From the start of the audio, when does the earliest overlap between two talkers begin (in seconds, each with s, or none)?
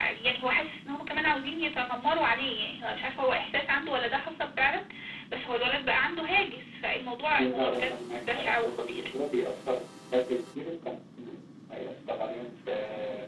7.4 s